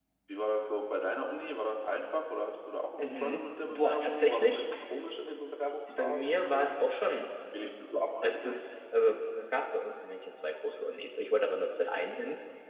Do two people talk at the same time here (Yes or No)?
Yes